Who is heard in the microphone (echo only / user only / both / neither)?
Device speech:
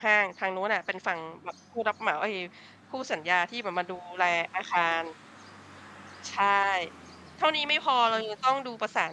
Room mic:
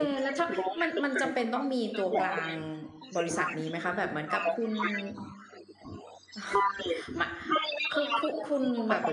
both